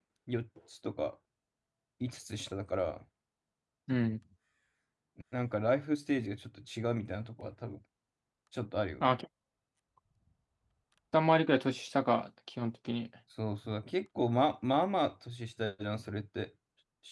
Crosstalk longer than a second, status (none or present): none